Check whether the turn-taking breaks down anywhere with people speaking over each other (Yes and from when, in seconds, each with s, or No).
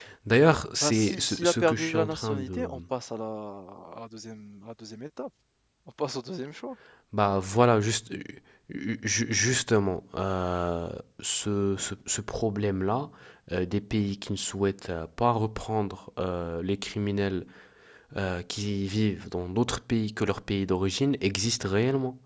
Yes, from 0.8 s